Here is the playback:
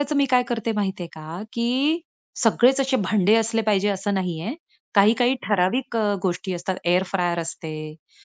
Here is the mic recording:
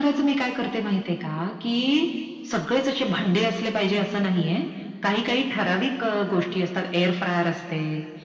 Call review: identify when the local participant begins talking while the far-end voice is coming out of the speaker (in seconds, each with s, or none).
none